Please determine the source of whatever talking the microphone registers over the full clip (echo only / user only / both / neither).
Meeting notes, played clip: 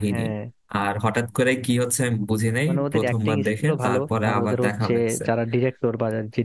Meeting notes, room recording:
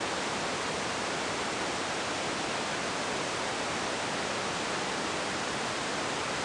neither